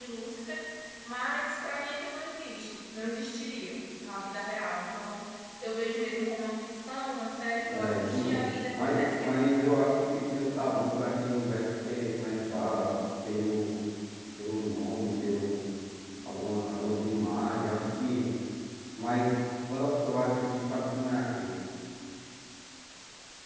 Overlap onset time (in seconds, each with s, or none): 7.6 s